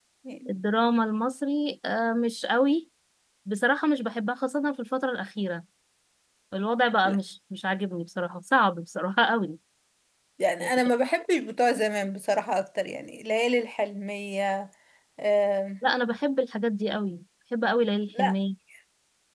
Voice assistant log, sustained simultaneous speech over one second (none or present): none